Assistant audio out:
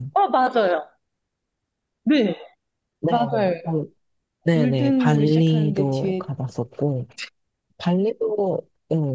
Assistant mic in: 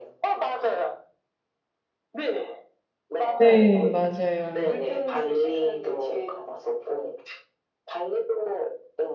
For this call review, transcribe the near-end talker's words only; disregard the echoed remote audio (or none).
네, 맞아요.